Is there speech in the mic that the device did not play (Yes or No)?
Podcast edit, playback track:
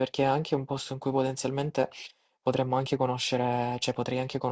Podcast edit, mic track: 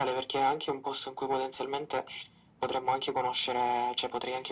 No